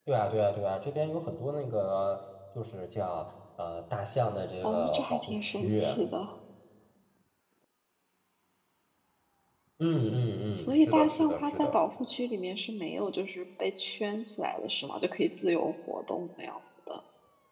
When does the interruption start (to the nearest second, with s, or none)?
5 s